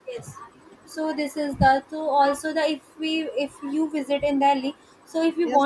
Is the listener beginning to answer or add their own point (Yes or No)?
Yes